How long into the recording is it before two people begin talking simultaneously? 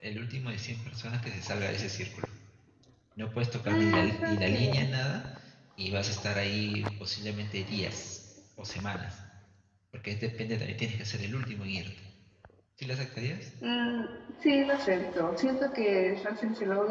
3.6 s

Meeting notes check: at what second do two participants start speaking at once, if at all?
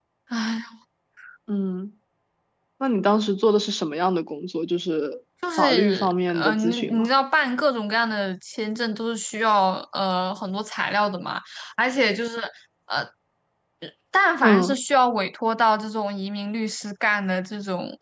5.6 s

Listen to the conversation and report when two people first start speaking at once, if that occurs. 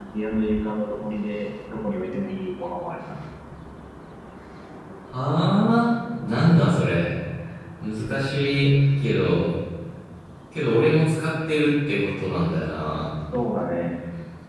none

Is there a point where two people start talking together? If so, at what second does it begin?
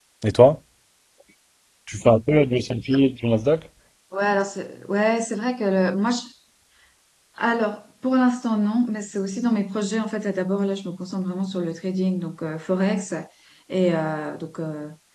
none

